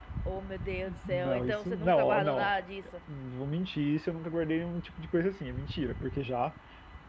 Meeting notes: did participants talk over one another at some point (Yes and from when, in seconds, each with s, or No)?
Yes, from 1.1 s